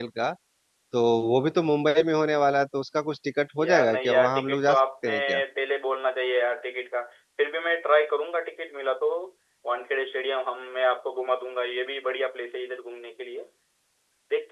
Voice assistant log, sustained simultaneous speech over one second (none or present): present